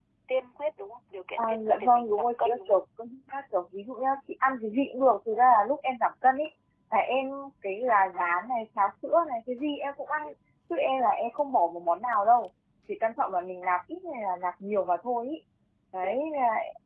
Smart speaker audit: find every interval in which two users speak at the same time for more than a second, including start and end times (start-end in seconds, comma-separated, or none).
1.4-2.8